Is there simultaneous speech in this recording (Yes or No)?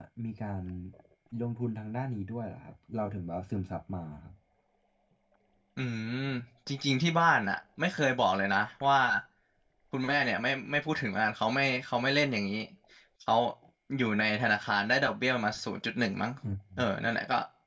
No